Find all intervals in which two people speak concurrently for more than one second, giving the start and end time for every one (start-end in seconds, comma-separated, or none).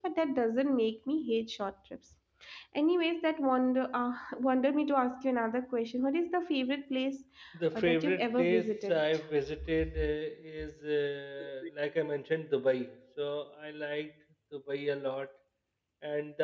7.7-9.0